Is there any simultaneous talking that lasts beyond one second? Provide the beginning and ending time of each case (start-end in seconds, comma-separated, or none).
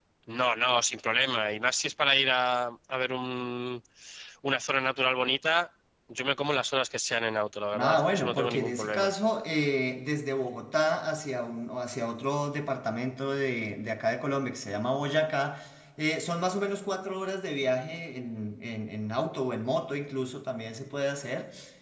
7.8-9.1